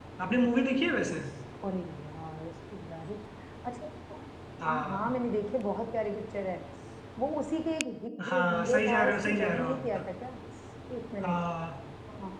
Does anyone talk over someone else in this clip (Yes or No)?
Yes